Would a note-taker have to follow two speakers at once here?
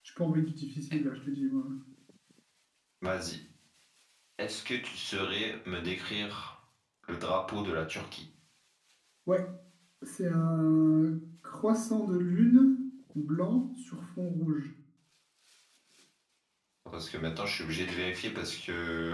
No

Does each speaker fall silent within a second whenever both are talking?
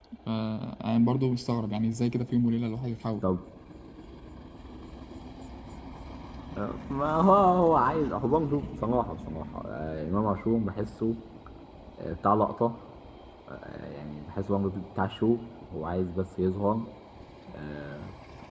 Yes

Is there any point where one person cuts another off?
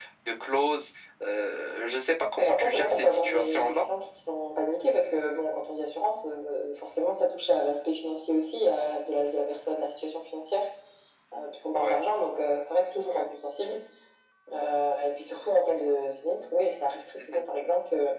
Yes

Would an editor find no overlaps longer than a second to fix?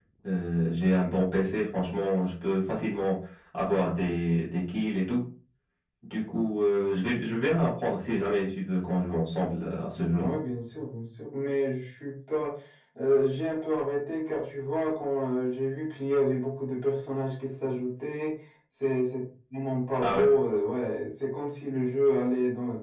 Yes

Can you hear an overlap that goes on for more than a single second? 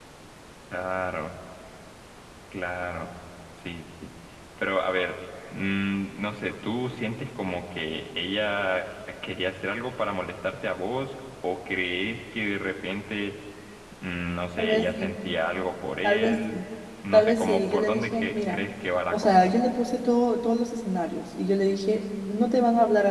Yes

